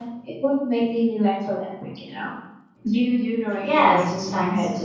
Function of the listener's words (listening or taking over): taking over